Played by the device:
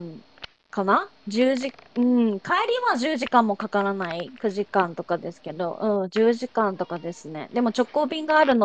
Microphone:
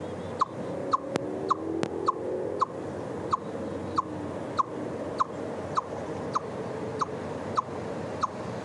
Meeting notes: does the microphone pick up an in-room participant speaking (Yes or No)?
No